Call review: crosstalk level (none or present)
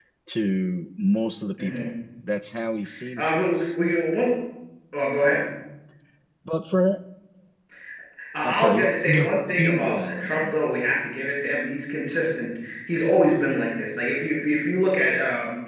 present